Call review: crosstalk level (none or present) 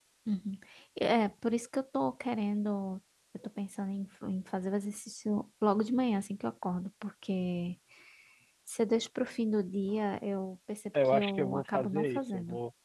present